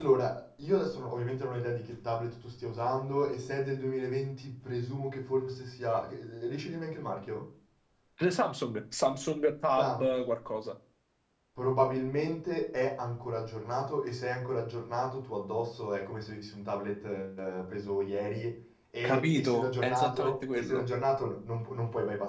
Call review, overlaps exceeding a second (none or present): present